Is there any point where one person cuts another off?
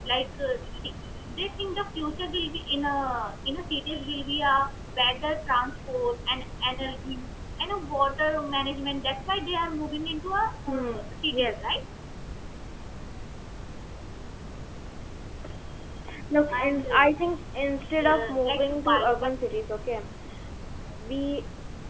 Yes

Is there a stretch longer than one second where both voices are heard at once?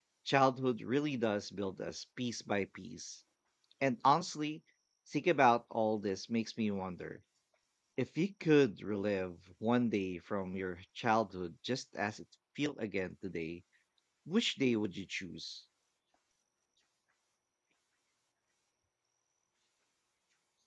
No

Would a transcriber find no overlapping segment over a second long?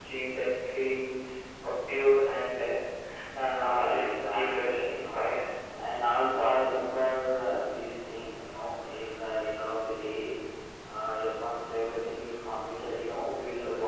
No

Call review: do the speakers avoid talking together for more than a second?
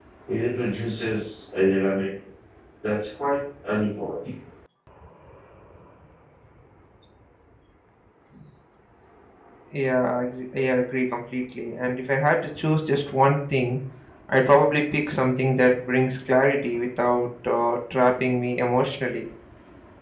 Yes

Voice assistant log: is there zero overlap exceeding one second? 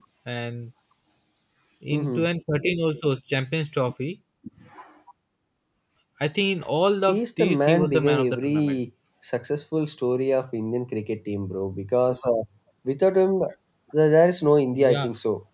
No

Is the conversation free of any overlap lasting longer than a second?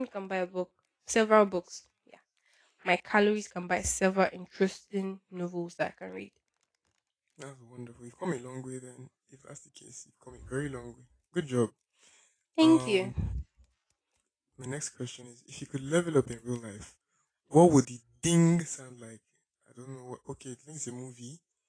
Yes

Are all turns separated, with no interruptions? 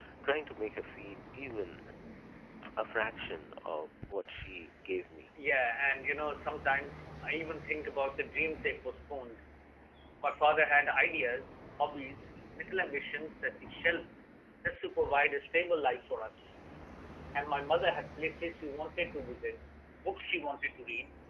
Yes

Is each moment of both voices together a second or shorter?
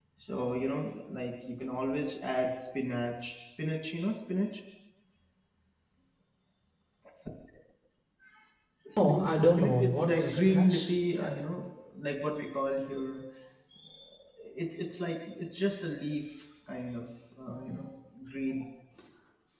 No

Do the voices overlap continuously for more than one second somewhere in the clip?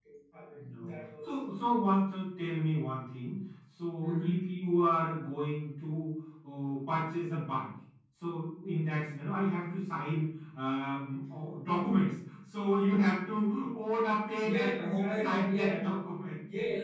Yes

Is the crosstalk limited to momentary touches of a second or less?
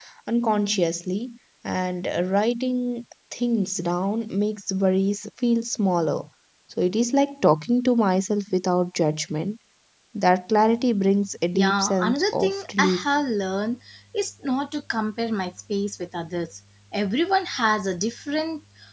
No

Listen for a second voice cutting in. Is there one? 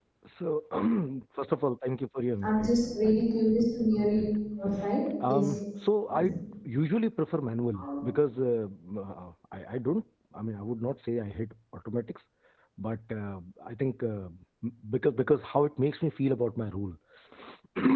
Yes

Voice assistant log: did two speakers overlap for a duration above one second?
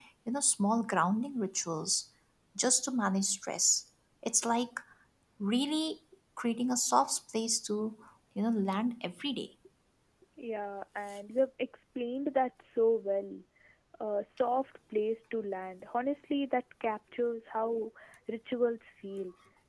No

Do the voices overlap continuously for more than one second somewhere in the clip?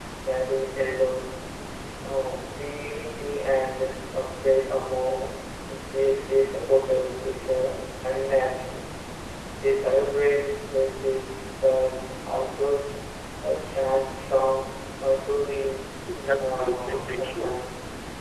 Yes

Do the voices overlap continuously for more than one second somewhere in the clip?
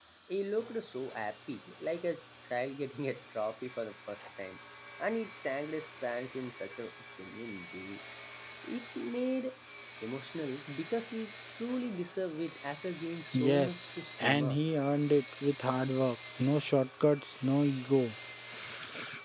Yes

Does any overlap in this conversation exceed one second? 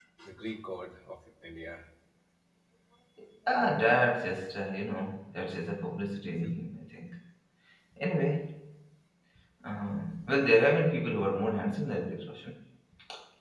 No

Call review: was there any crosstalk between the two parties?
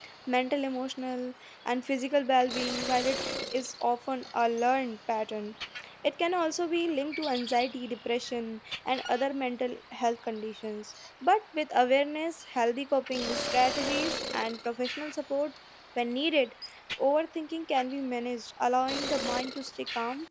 No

